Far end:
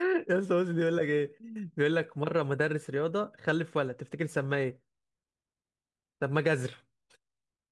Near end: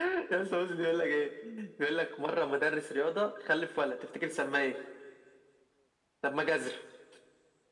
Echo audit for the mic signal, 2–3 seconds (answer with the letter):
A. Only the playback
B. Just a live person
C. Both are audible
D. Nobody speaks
A